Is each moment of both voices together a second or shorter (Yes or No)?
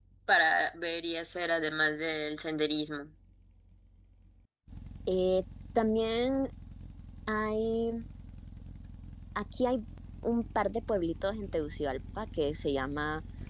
Yes